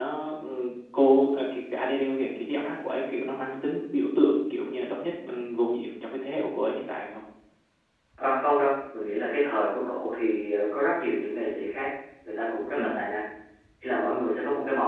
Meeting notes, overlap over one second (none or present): none